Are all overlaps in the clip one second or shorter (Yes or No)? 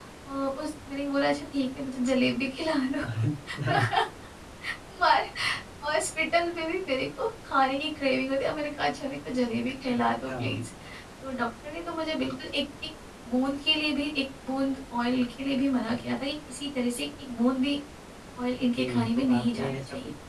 No